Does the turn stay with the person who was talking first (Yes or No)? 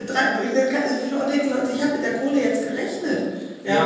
No